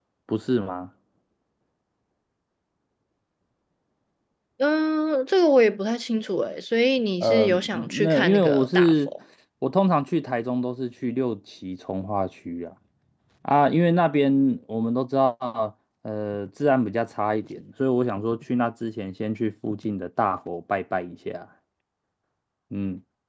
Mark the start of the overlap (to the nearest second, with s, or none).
7 s